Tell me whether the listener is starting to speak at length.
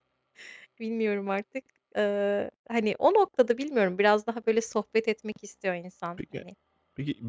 Yes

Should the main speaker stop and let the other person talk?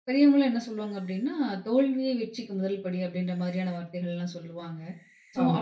No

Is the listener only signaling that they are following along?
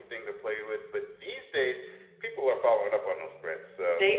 Yes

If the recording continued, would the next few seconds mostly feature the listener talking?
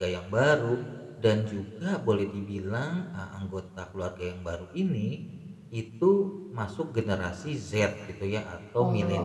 Yes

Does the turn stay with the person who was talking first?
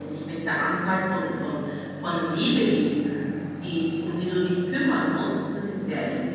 No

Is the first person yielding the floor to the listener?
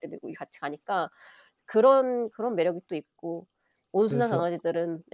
No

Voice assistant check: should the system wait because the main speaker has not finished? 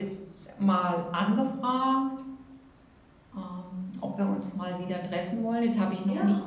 Yes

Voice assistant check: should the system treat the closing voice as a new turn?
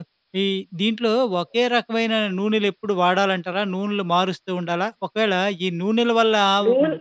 No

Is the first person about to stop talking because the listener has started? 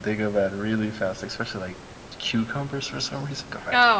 Yes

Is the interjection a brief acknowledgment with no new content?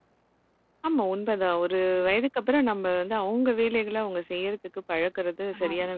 No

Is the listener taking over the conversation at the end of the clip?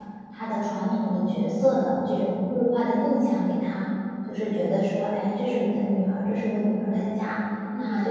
No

